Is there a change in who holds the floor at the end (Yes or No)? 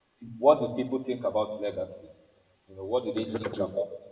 No